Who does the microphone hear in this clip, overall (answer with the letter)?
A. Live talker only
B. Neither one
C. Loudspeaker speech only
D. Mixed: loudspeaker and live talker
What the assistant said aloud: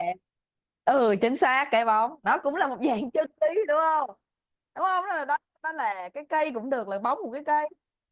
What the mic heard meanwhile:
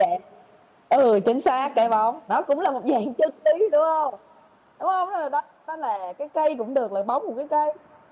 D